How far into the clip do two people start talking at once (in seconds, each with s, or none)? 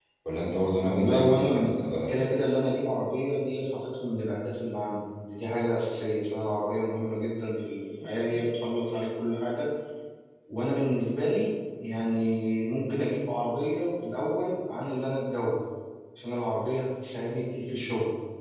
0.8 s